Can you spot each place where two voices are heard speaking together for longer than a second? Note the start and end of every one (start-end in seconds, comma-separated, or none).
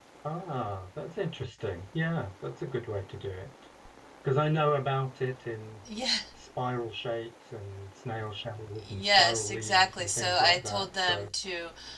8.8-11.3